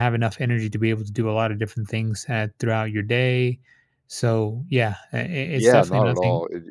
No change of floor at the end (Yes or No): No